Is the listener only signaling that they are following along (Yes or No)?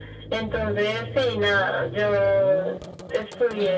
Yes